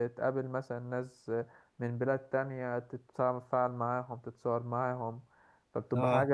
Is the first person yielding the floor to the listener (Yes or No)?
No